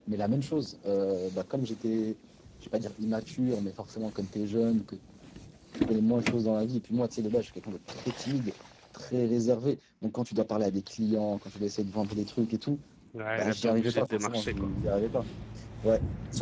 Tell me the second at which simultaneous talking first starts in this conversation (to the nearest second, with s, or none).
13 s